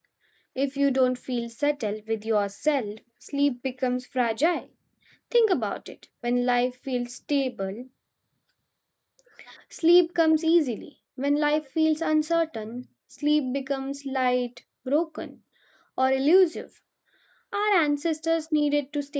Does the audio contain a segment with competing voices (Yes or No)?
No